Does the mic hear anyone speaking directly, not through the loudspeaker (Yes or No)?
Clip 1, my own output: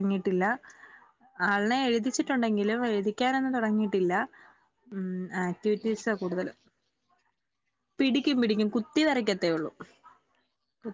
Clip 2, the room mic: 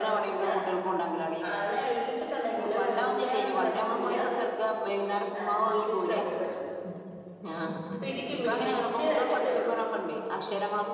Yes